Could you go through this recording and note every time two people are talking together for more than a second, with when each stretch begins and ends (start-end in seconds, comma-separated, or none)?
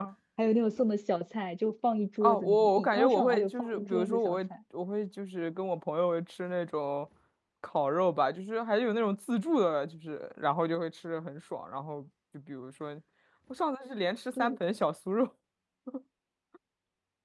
2.2-4.4